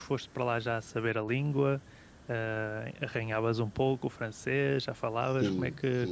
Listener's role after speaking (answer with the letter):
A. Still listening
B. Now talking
B